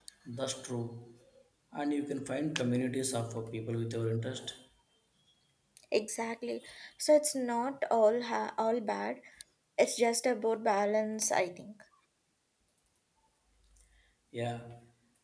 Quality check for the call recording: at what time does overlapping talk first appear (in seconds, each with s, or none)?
none